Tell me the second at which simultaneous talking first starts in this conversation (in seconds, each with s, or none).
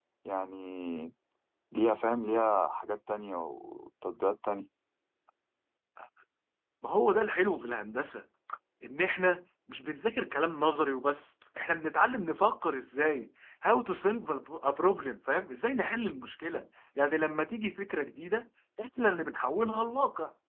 none